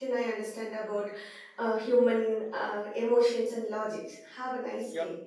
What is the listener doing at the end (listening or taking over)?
taking over